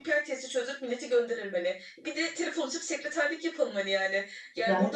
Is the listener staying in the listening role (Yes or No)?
Yes